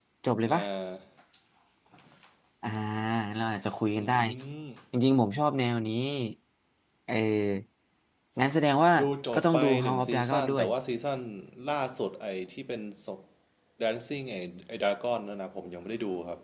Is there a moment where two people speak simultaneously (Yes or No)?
Yes